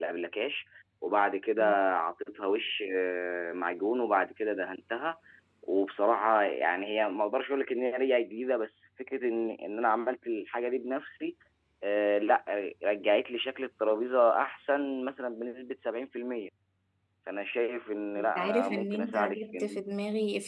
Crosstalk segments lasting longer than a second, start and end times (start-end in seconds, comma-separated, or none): 18.2-19.8